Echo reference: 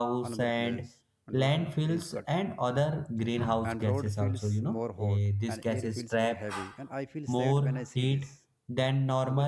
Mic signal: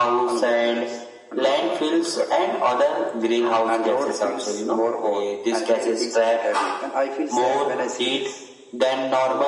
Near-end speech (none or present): none